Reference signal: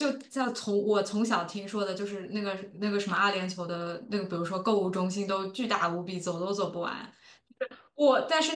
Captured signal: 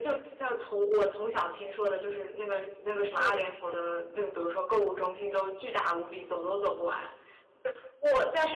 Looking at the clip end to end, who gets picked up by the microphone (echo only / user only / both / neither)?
both